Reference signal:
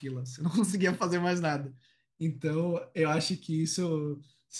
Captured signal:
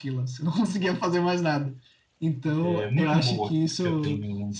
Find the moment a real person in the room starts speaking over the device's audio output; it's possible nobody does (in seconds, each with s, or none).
2.6 s